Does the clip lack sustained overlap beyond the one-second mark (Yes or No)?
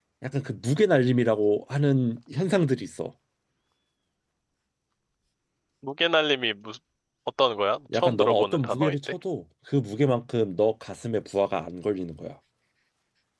No